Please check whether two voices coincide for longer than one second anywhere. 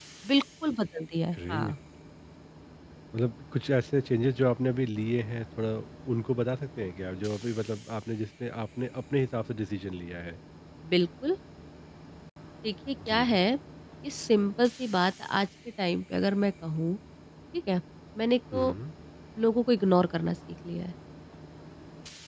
No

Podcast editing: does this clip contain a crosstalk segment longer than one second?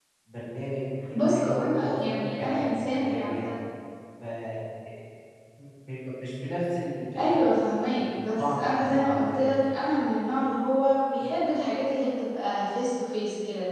Yes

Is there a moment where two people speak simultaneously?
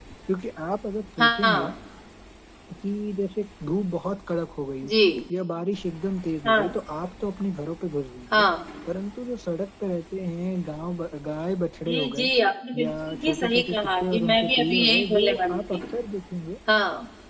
Yes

